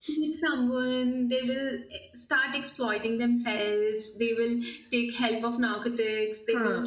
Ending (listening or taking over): listening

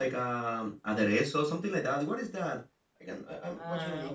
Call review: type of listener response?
taking over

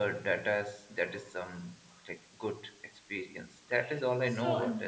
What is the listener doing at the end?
taking over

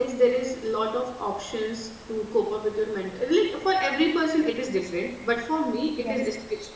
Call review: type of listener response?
listening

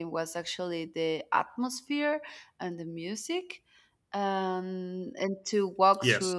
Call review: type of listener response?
listening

